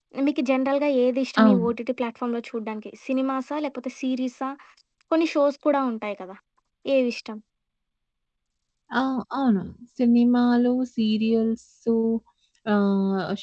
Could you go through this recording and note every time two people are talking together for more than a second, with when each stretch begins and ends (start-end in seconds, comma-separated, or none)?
none